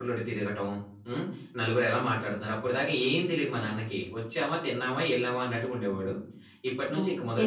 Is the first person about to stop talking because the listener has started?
No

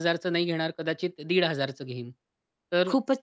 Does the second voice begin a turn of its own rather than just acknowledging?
No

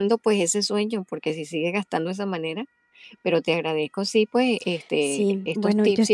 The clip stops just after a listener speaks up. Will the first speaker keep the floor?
No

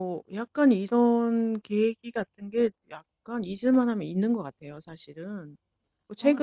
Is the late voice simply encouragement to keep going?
Yes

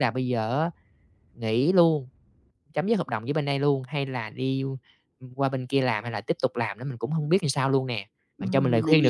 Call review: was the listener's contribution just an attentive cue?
No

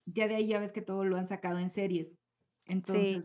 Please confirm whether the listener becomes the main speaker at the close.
No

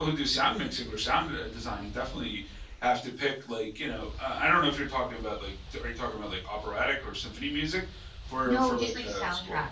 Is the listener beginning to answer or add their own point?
Yes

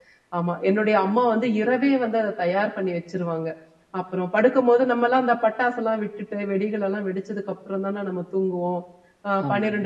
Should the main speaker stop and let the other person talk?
No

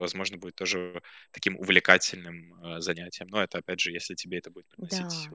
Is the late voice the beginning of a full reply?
Yes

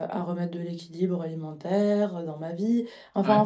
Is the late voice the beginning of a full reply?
No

